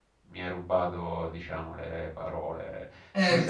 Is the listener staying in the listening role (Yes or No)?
No